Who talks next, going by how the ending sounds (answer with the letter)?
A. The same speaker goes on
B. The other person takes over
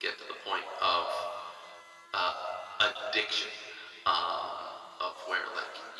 A